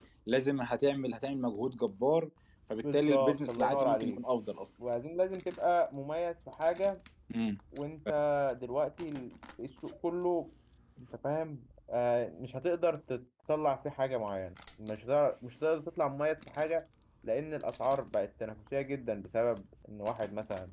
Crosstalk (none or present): present